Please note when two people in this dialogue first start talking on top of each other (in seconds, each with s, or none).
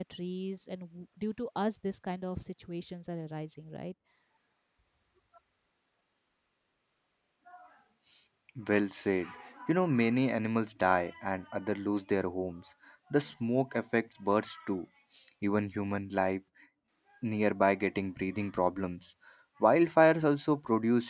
none